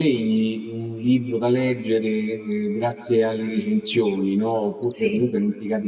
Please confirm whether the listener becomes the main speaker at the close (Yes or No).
No